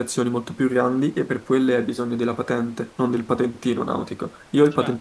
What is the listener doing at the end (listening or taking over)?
listening